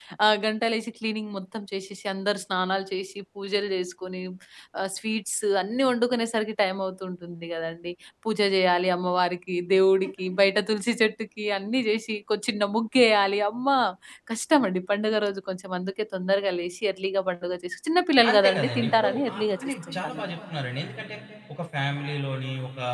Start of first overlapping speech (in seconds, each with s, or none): 18.2 s